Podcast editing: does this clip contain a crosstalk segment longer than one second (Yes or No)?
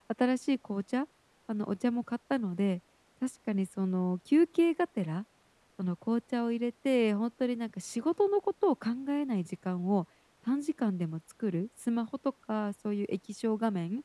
No